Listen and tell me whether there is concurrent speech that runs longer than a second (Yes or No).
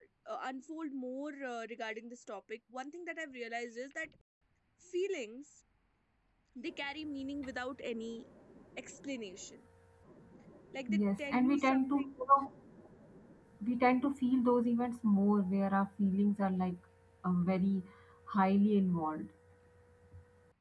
Yes